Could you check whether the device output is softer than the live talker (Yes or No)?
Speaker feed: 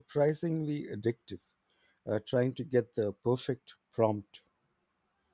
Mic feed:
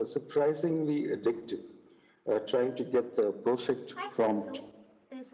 No